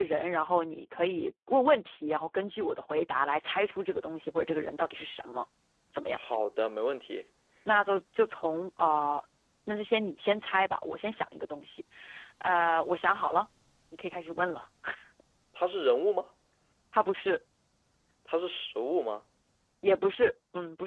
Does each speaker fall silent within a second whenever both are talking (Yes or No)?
Yes